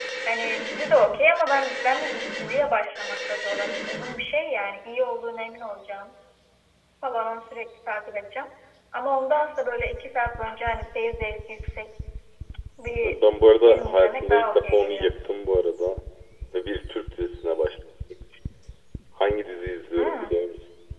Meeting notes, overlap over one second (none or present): present